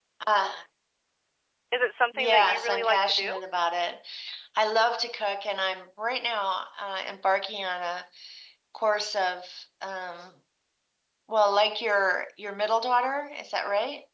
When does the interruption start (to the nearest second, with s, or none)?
2 s